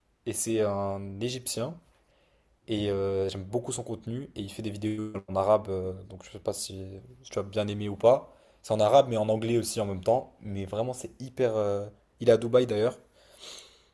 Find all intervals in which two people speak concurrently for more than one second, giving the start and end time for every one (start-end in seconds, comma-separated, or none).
none